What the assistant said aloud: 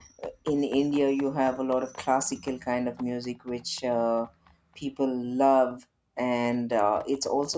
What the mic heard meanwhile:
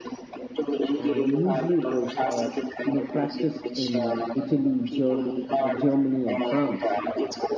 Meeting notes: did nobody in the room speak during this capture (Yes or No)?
No